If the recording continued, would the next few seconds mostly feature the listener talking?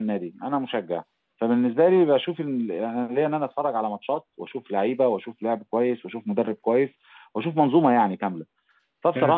No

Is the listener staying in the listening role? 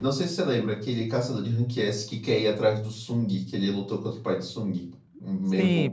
No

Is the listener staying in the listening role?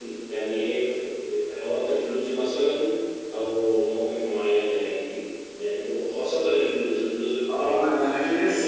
No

